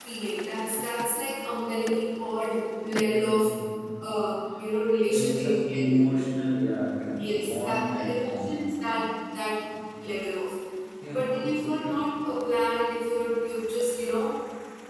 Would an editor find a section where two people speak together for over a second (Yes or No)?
Yes